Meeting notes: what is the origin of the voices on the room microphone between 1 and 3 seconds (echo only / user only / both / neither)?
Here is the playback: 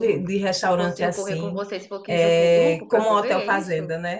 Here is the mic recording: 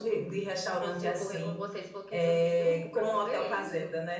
echo only